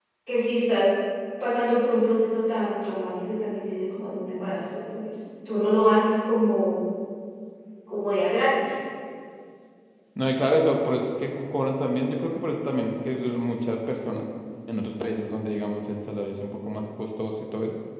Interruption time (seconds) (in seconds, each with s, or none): none